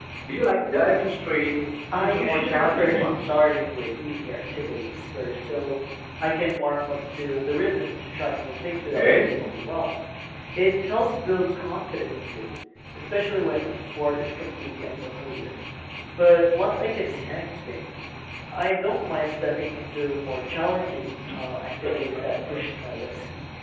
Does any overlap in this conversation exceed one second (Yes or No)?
Yes